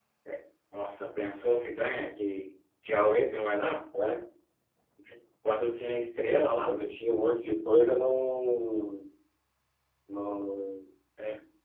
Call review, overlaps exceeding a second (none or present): none